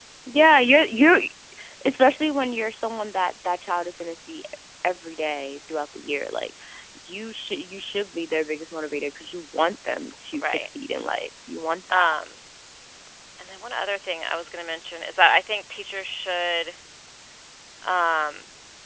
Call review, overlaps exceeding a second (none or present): none